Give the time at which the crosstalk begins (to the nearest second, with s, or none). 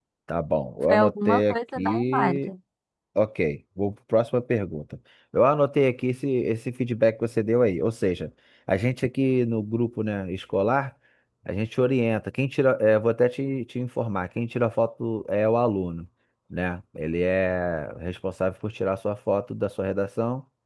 1 s